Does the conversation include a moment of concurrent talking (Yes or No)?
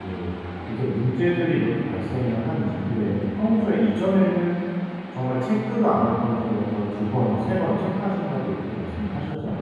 No